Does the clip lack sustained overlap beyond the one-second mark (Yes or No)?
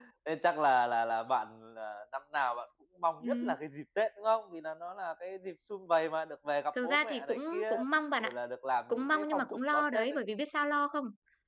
No